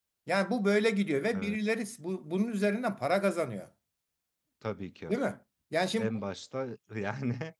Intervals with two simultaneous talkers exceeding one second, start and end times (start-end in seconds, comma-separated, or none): none